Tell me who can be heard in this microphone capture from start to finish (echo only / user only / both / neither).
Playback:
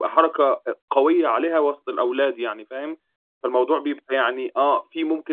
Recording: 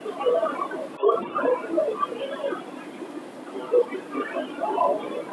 echo only